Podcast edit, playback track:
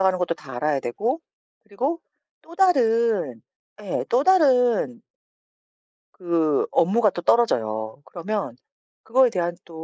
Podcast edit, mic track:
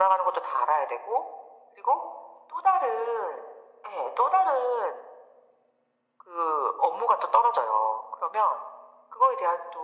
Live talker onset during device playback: none

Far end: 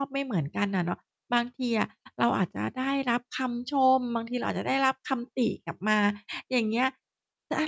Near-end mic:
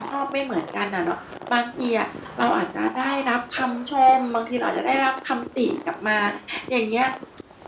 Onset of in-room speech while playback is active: none

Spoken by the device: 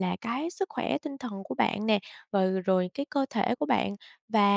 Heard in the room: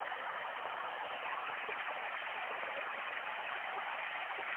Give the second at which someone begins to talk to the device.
none

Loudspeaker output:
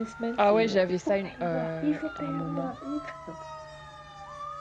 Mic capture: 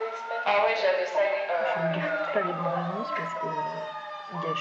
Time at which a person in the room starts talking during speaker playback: 2 s

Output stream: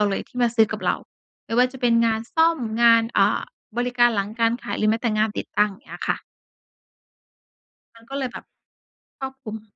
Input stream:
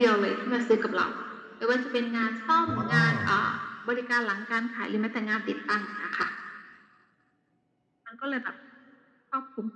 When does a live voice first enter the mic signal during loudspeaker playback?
3 s

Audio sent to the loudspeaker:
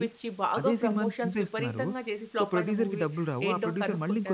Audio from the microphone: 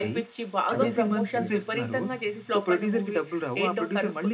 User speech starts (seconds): 1 s

